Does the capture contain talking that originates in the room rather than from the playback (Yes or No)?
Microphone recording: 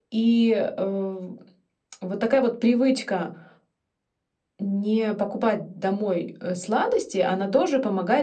No